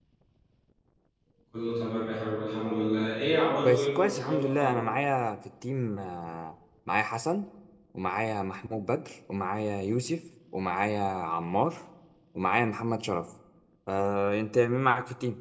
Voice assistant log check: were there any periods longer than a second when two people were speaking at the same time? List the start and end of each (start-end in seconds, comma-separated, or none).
3.6-4.8